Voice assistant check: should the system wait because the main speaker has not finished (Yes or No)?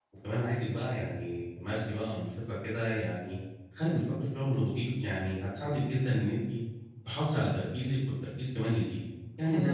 Yes